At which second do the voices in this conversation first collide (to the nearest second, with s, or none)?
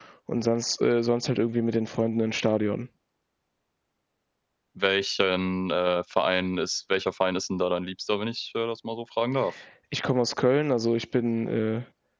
none